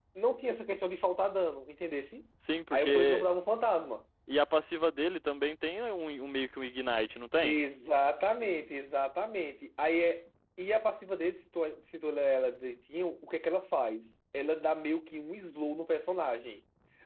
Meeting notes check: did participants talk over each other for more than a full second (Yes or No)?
No